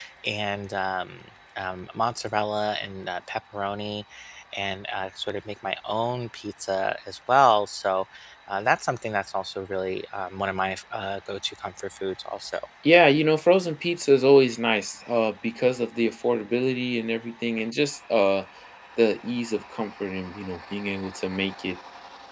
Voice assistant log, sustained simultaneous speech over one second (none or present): none